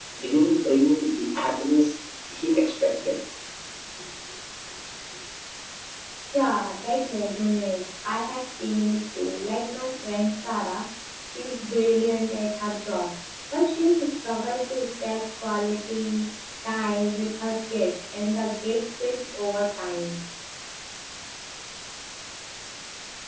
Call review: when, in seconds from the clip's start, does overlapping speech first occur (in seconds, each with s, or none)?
none